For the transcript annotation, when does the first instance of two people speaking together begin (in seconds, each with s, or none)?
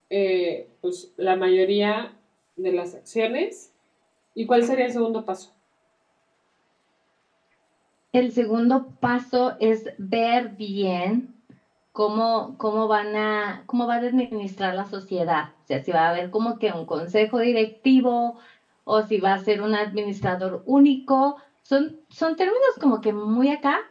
none